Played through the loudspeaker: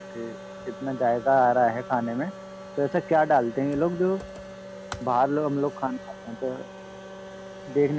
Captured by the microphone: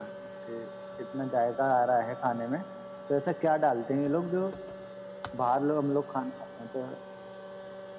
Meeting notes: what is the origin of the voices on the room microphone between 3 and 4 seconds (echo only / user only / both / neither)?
echo only